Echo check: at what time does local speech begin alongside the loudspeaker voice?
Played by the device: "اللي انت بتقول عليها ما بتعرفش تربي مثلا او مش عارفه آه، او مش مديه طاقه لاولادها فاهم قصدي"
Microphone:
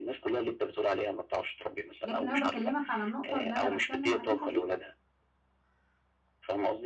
2 s

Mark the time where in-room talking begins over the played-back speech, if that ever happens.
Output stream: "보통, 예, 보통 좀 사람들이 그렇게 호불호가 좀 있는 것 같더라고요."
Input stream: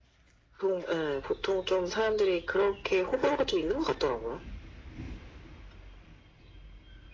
none

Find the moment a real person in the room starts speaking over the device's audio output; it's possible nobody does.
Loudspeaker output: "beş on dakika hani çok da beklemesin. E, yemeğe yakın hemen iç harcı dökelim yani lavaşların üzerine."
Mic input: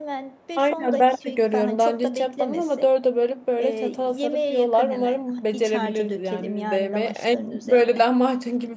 1 s

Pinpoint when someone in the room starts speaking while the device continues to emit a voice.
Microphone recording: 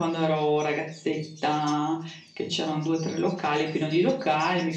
none

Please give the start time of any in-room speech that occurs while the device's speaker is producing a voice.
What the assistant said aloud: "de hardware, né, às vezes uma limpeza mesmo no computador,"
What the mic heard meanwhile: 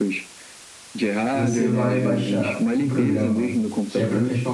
1 s

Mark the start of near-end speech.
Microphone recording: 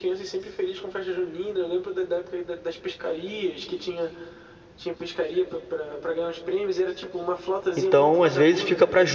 8 s

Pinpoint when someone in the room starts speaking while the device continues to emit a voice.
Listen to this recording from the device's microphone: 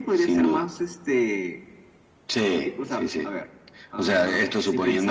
none

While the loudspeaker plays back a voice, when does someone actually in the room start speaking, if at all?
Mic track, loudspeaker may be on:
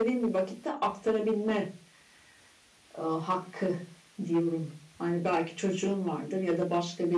none

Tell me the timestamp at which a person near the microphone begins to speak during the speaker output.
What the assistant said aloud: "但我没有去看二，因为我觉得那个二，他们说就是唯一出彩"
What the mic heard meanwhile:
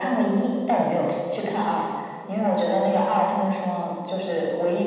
none

